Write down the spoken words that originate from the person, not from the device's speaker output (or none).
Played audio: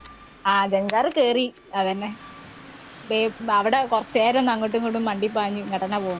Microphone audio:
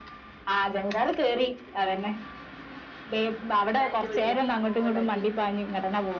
ഞാൻ എന്റെ വീട്ടില അപ്പ ഇമ്മ ഉണ്ടാക്കി